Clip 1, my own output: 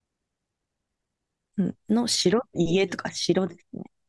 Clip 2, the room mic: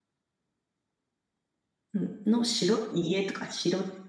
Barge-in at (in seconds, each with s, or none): none